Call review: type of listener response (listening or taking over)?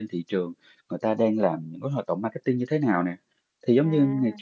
listening